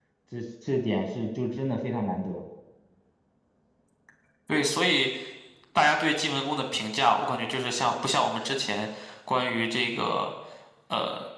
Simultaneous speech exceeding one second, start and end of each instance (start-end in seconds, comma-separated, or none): none